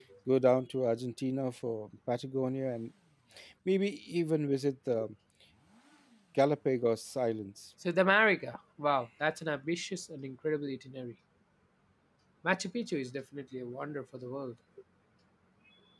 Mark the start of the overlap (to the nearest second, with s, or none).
none